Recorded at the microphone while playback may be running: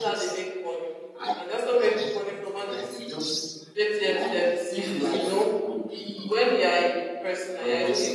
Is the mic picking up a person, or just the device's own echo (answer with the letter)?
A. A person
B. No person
A